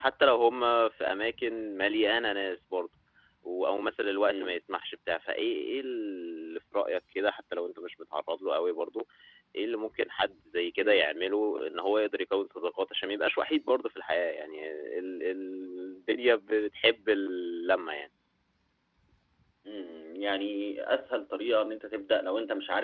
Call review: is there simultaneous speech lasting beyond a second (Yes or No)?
No